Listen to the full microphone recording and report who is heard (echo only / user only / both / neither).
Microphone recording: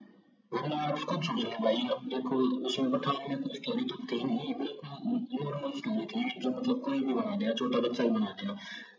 echo only